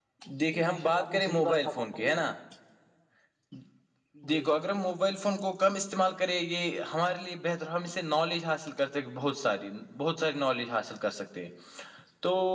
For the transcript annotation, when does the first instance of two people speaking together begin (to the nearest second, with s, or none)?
1 s